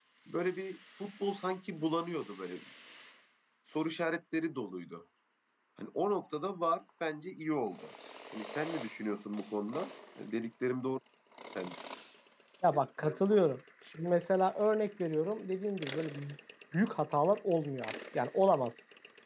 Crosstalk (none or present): none